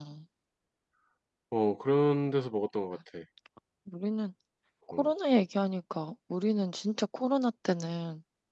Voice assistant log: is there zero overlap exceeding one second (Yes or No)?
Yes